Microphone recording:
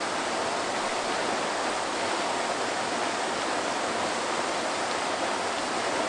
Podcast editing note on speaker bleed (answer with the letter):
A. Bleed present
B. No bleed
B